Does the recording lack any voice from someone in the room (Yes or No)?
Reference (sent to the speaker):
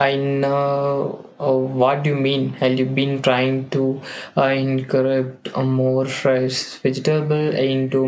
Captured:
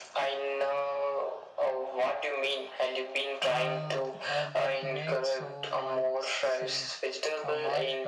No